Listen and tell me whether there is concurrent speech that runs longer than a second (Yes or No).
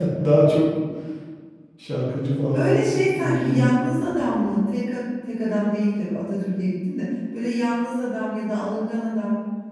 Yes